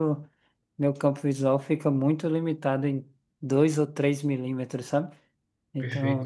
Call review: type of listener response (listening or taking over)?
taking over